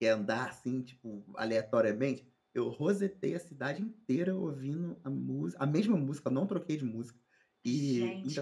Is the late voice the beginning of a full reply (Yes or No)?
Yes